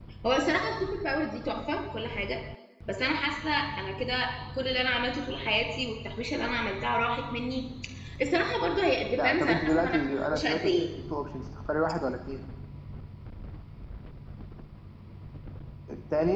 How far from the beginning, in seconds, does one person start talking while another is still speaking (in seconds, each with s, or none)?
9.2 s